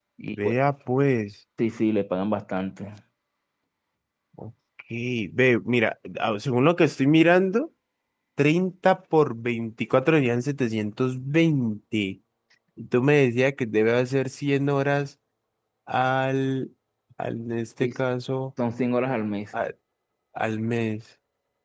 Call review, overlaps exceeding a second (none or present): none